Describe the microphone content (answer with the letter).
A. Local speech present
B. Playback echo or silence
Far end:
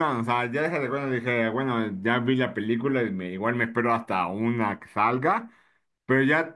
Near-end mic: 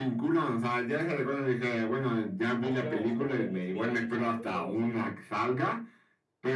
A